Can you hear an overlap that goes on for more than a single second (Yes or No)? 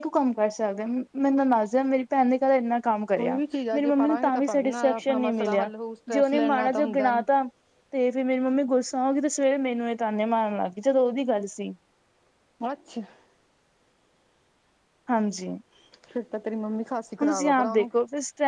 Yes